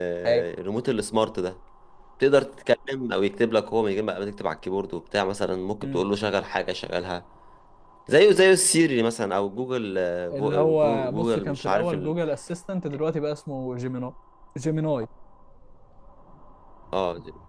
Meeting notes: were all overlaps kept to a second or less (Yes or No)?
No